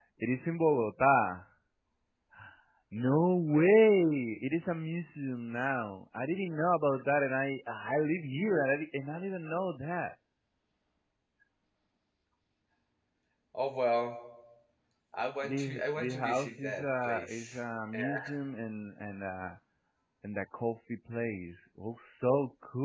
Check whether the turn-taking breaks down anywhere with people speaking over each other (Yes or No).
Yes